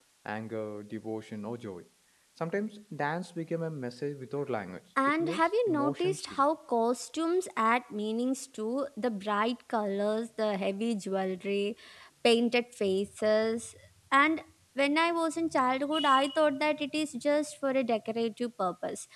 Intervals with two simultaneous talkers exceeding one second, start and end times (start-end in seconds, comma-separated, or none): 5.2-6.4